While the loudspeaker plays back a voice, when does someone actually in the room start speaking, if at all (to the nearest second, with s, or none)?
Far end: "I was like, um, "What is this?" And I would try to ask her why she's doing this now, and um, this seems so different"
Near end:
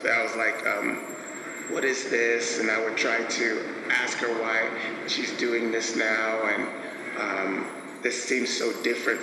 none